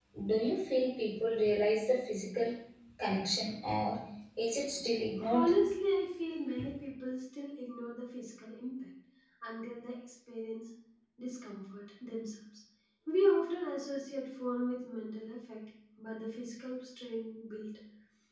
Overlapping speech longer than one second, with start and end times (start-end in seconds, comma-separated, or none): none